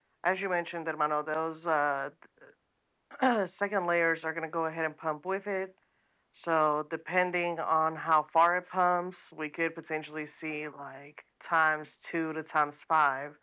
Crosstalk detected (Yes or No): No